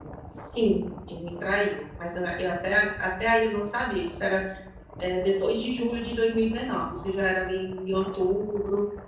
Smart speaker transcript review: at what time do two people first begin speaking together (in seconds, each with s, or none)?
none